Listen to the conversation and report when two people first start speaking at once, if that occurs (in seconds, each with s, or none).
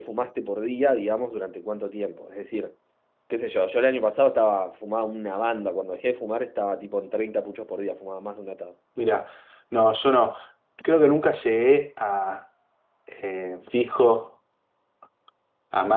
none